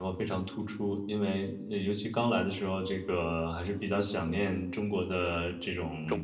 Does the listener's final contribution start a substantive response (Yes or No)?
No